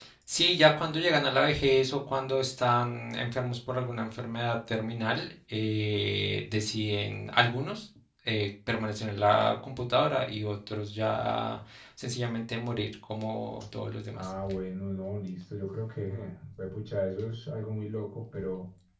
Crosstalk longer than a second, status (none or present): none